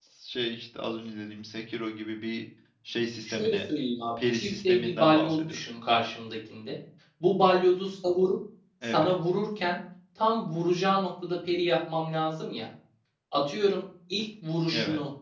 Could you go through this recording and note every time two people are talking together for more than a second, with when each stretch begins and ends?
4.3-5.8

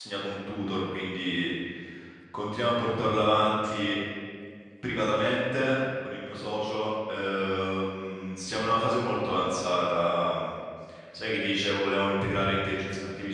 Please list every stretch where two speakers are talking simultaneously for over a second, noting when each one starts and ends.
none

